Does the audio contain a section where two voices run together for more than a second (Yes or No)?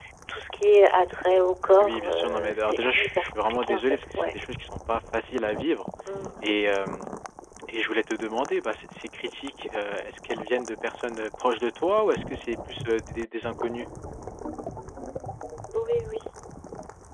Yes